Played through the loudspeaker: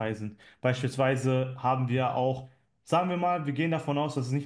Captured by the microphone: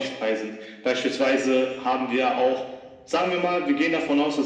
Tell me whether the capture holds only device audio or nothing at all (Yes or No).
Yes